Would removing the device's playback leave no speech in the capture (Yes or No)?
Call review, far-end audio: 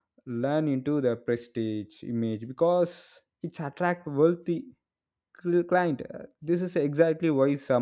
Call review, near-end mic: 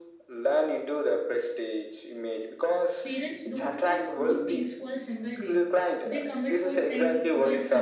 No